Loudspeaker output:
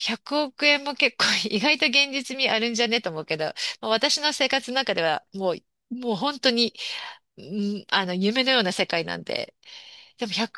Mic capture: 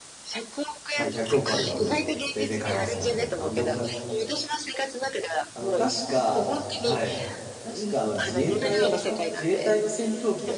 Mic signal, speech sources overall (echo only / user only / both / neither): both